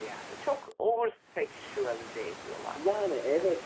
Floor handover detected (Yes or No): Yes